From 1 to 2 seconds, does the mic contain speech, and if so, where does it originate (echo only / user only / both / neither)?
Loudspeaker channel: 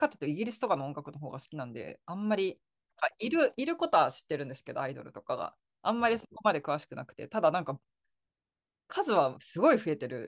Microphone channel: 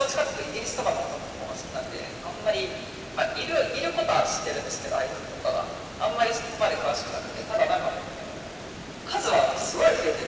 echo only